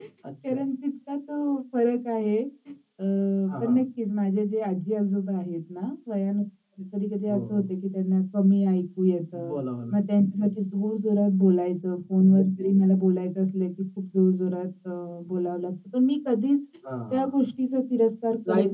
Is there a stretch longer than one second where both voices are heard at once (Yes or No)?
No